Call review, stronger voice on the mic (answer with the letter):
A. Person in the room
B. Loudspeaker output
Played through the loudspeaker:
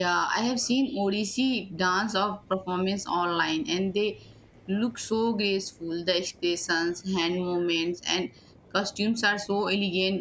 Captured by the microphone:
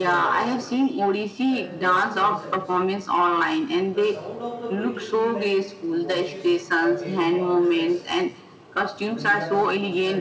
B